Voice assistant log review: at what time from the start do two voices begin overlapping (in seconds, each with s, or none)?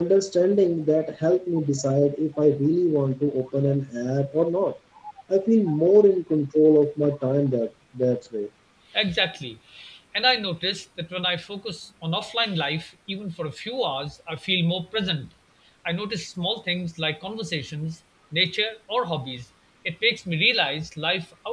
none